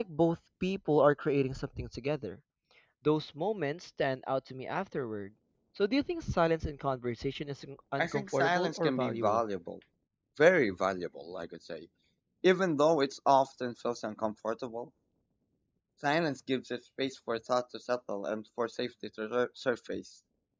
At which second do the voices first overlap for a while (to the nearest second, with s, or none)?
8 s